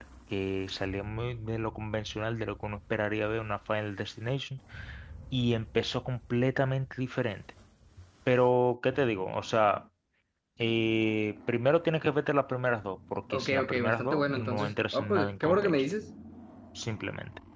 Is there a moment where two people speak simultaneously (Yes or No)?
Yes